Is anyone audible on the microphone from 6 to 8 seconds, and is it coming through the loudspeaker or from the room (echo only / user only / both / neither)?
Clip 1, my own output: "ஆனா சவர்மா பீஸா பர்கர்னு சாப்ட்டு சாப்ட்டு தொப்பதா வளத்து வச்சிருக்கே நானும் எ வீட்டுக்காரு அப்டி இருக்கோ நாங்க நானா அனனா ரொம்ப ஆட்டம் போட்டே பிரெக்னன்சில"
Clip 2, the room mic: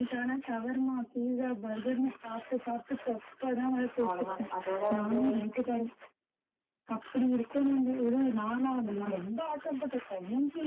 echo only